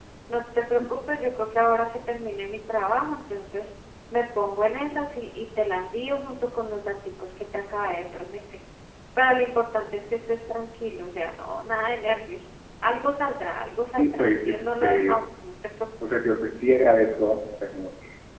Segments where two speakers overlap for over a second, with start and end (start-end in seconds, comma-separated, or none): 13.9-15.2